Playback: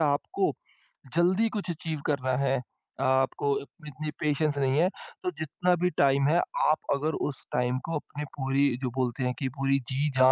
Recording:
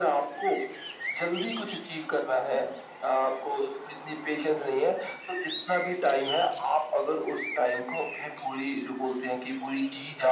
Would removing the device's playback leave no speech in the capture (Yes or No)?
Yes